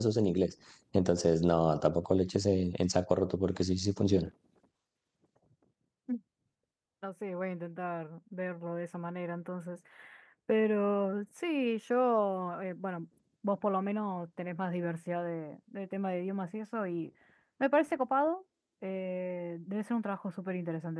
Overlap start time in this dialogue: none

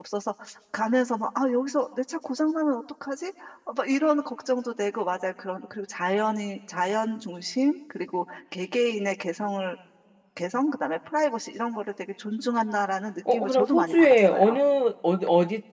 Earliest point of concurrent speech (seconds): 13.2 s

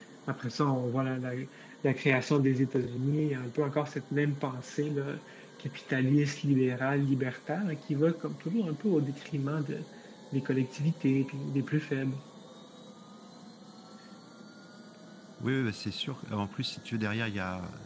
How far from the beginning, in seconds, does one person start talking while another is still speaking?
none

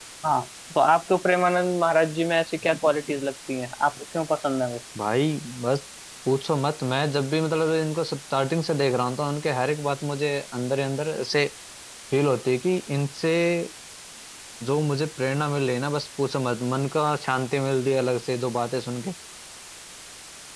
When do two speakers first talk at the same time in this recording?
none

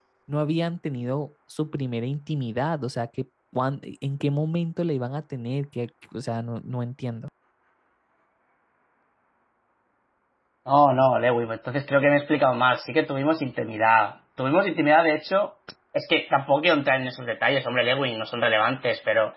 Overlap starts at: none

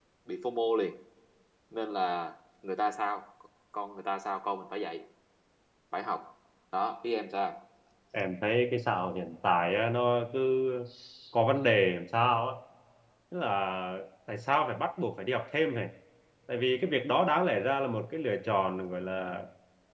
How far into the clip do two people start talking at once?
none

